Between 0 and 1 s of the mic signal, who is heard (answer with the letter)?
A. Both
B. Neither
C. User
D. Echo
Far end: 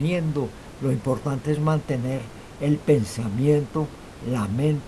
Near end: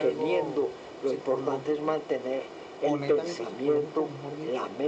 A